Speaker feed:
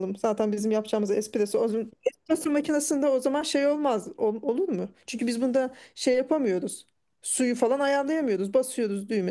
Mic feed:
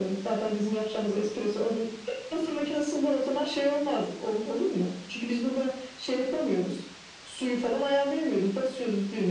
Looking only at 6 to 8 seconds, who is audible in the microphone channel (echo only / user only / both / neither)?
echo only